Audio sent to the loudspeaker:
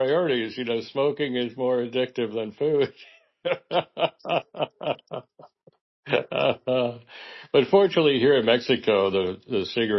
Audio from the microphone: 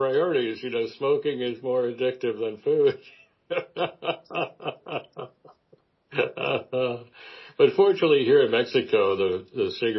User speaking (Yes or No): No